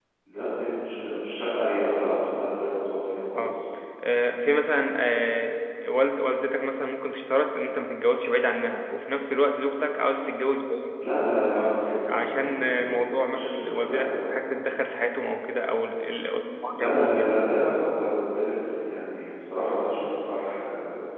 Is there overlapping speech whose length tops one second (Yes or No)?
Yes